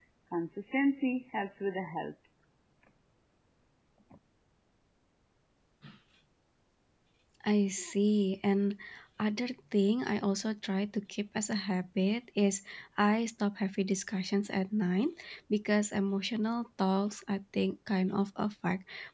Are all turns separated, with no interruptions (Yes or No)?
Yes